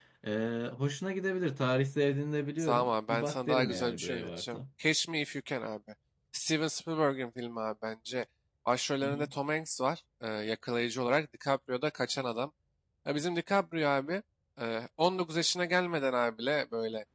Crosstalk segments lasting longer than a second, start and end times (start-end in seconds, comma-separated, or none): 2.6-4.6